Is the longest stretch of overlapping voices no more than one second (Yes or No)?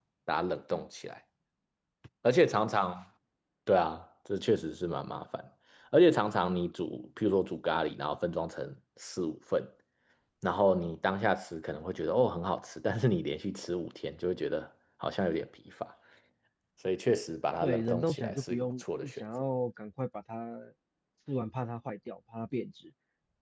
No